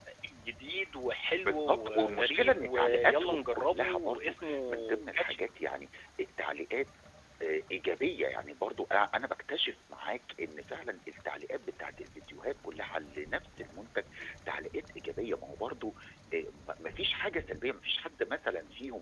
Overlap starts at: 1 s

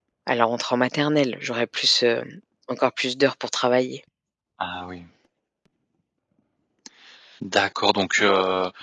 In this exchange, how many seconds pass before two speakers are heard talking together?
none

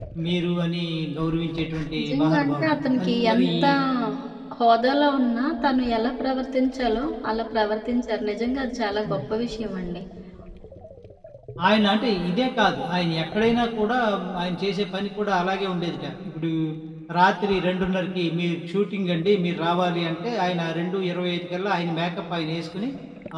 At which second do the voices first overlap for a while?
2 s

